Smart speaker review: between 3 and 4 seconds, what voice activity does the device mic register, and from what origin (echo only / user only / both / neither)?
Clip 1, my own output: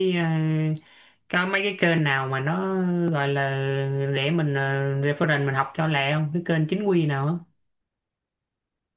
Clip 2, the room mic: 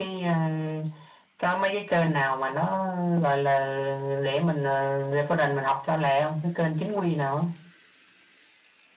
echo only